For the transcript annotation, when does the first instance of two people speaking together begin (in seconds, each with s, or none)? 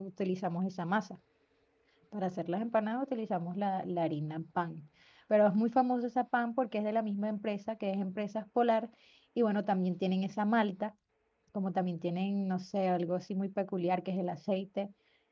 none